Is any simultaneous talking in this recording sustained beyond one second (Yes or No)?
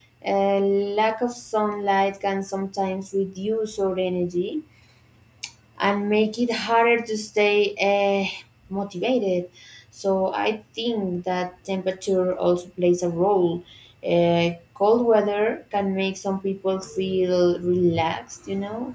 No